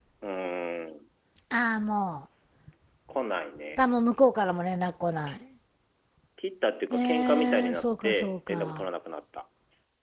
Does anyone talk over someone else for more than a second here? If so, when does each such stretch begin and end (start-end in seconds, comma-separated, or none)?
6.9-8.9